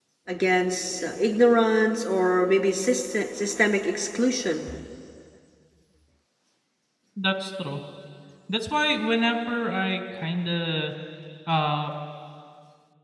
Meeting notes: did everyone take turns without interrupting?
Yes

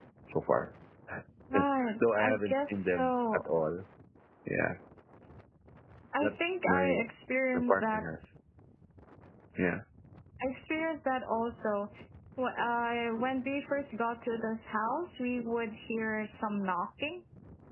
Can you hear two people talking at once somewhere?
Yes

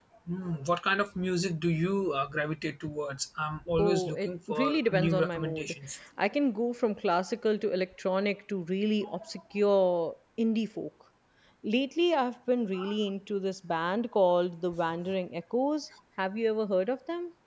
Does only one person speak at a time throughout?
No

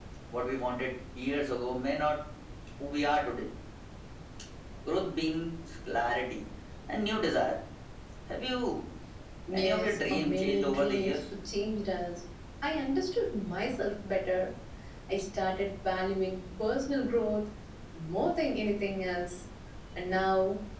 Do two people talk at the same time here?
Yes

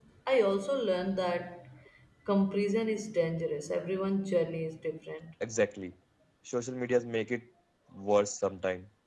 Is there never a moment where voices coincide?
Yes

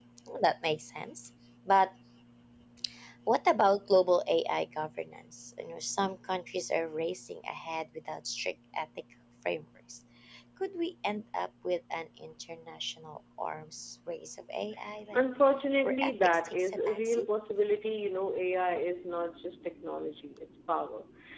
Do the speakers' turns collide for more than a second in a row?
Yes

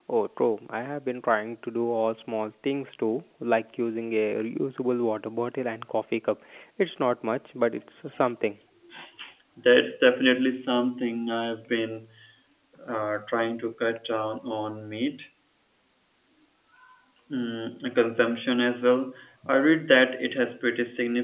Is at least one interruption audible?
No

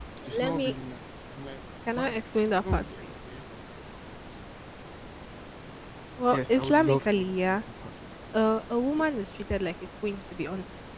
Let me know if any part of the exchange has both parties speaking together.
Yes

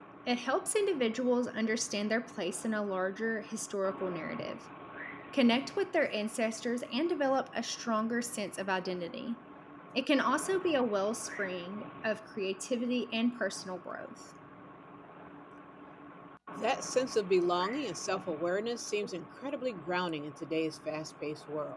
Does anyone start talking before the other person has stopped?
No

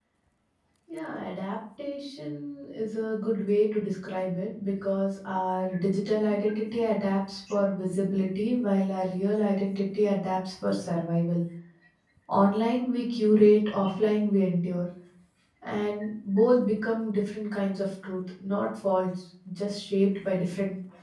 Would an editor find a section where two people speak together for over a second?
No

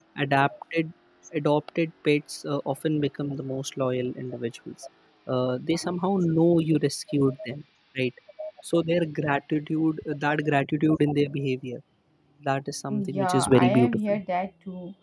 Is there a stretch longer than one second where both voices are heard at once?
Yes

